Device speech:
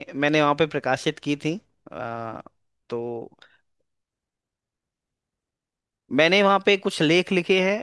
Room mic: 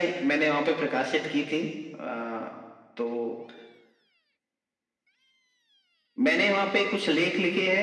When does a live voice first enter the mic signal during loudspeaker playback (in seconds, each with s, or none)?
none